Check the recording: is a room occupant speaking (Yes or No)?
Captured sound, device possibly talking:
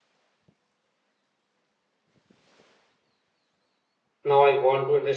Yes